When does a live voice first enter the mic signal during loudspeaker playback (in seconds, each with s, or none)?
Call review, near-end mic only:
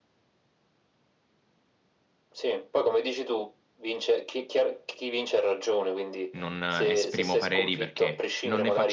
6.3 s